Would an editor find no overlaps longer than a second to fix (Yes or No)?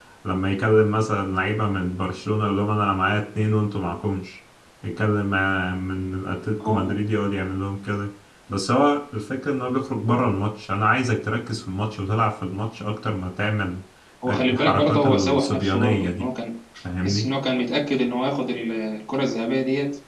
No